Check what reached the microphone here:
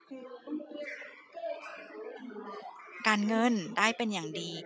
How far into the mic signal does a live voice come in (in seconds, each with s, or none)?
3.1 s